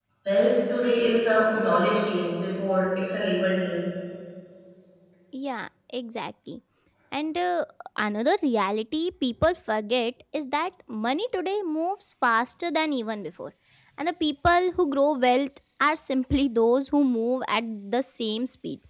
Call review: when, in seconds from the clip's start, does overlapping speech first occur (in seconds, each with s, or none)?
none